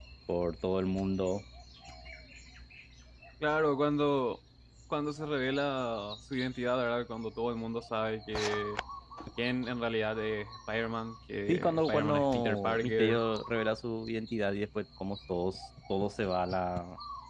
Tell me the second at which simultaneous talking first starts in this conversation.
11.5 s

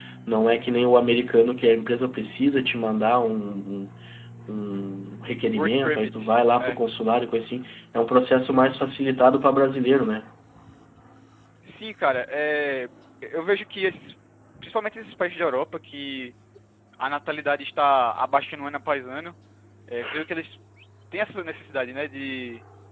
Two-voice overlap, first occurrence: 5.5 s

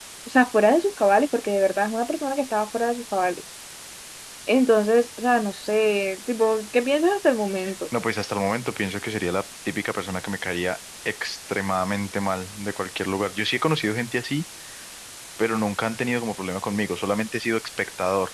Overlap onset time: none

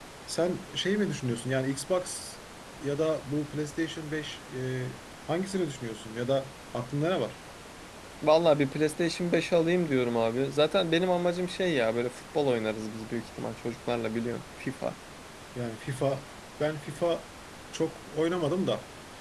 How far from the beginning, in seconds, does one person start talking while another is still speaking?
none

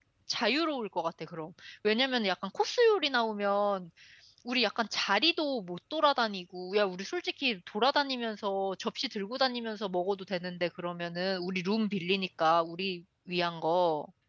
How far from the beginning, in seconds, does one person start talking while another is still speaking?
none

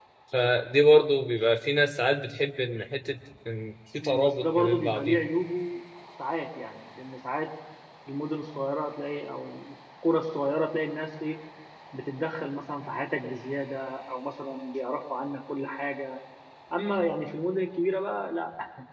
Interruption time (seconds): 4.0 s

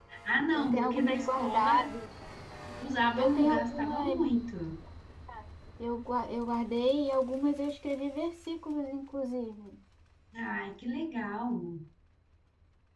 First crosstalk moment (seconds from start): 0.5 s

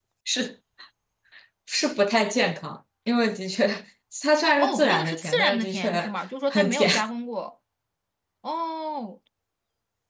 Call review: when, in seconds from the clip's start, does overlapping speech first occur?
4.6 s

